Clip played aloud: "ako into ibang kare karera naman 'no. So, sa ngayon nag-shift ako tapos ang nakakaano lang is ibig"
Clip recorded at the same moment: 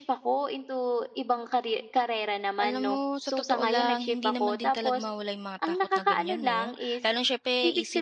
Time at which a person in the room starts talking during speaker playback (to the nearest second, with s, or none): 3 s